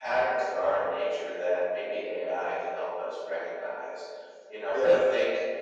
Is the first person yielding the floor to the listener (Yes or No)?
No